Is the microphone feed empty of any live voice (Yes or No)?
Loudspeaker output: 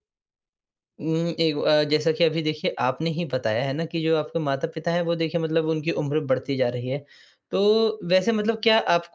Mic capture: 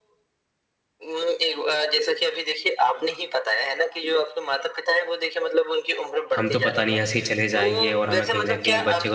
No